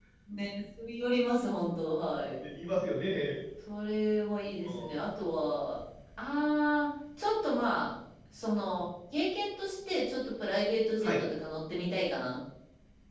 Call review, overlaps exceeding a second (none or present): none